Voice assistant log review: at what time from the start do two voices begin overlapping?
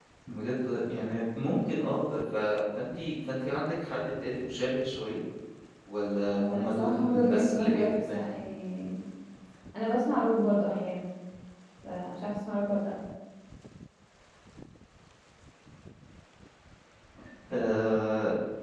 6 s

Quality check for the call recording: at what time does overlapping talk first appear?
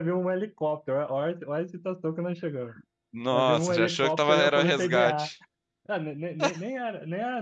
3 s

